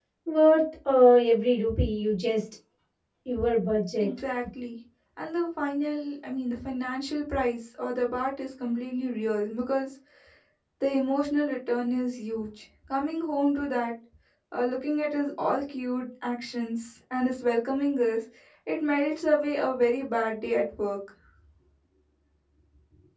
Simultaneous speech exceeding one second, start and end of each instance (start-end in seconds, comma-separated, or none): none